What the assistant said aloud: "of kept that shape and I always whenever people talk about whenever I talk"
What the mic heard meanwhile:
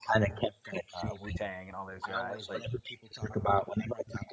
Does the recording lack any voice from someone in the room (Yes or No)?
No